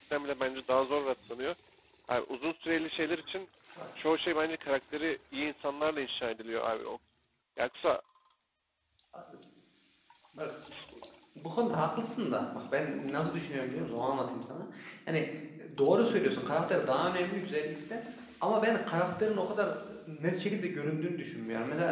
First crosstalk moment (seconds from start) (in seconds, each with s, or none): none